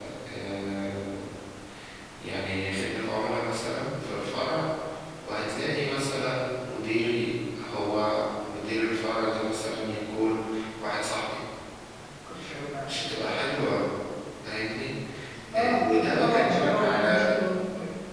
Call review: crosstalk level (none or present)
present